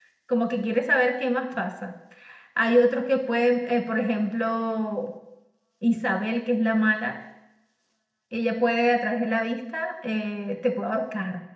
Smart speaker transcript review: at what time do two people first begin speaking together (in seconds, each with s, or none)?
none